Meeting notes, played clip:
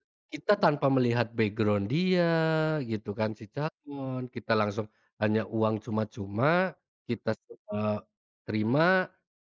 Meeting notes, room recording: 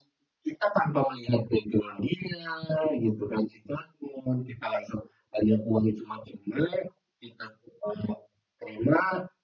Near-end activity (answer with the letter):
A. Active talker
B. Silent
B